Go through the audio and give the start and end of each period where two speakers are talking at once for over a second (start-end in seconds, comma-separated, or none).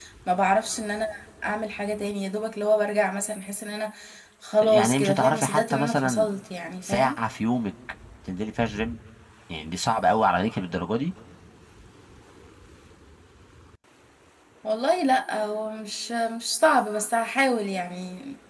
4.6-6.3